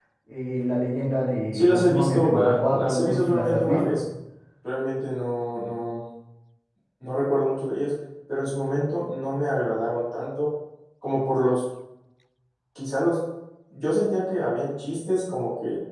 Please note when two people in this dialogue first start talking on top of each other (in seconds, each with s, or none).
1.5 s